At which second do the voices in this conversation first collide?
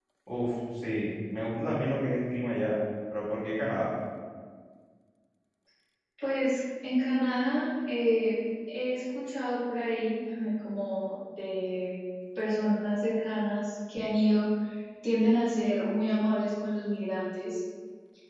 none

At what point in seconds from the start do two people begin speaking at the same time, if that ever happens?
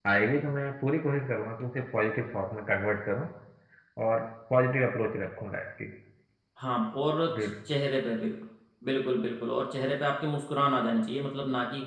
none

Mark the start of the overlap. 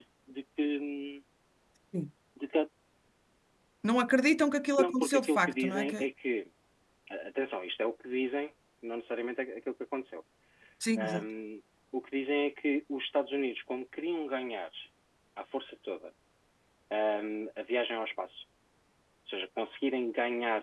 4.8 s

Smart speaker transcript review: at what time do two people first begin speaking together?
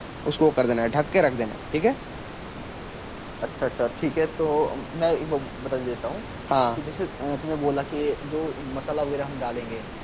none

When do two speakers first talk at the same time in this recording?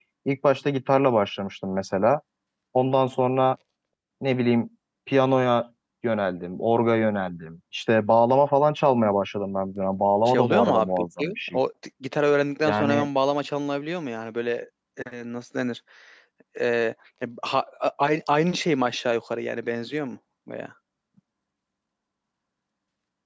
10.2 s

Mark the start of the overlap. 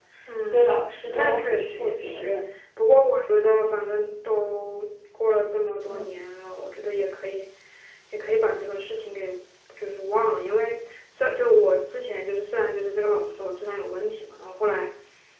0.5 s

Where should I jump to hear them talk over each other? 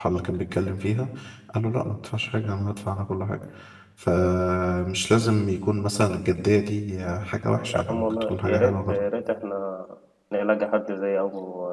7.7 s

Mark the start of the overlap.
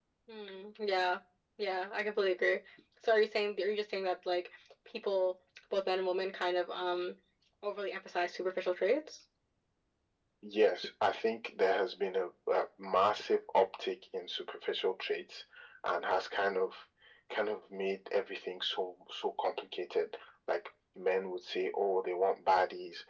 none

